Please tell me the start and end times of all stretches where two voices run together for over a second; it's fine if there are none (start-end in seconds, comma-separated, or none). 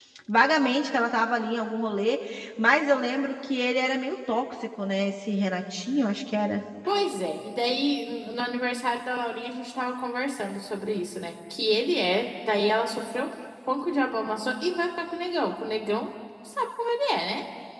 none